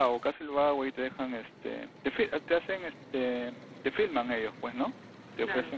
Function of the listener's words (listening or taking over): listening